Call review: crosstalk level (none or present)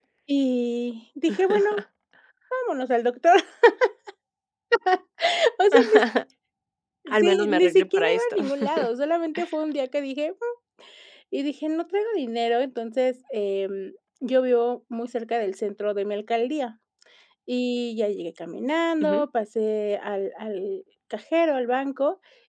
present